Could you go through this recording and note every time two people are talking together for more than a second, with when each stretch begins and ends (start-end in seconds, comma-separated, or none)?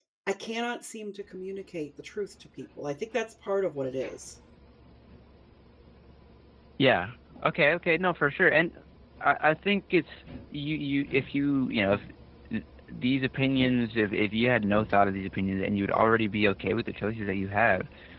none